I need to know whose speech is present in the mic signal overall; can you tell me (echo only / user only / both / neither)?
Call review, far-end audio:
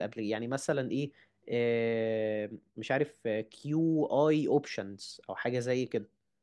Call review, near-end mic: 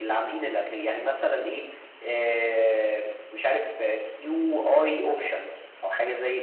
echo only